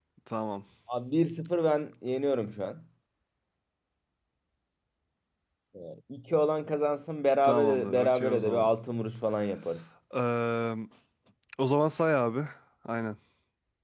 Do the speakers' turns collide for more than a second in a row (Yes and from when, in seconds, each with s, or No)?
Yes, from 7.4 s